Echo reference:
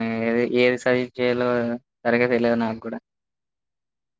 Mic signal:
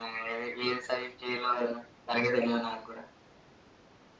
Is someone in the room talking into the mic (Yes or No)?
No